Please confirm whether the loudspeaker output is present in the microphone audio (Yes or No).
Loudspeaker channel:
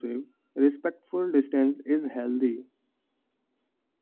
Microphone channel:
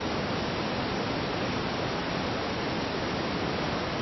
No